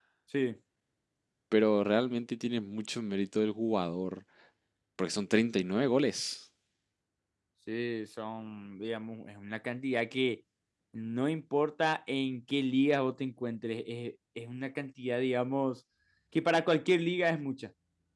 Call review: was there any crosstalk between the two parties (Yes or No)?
No